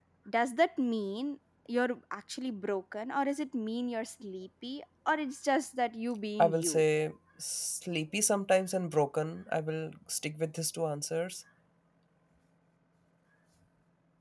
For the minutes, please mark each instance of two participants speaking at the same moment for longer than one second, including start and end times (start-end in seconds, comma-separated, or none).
none